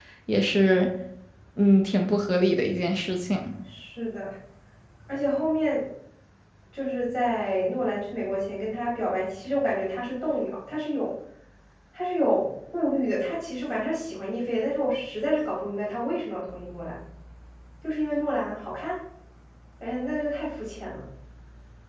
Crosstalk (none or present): none